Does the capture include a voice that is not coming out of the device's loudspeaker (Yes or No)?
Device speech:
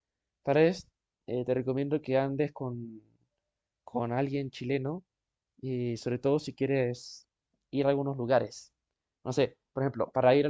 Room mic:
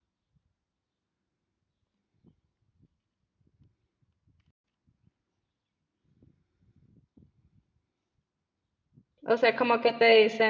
Yes